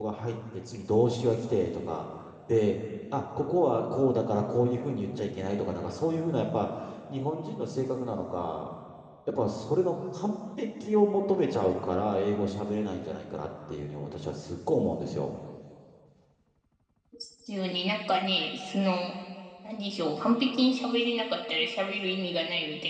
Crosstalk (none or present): none